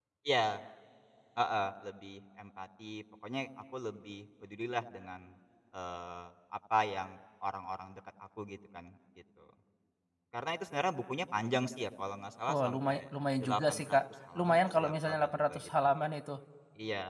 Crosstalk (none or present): present